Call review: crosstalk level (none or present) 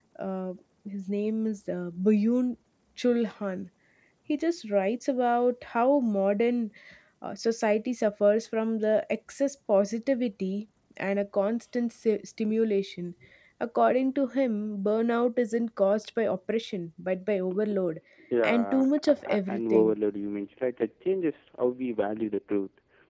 present